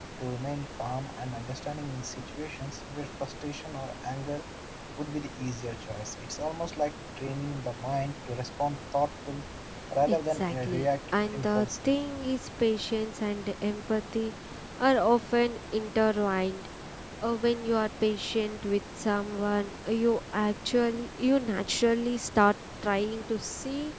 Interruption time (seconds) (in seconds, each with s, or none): 10.1 s